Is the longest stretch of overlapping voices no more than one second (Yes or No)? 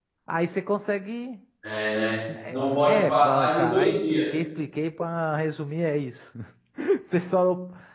No